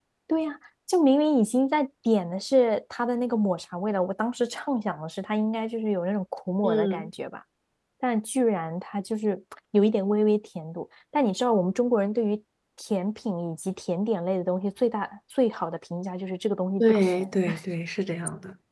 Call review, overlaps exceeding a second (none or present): none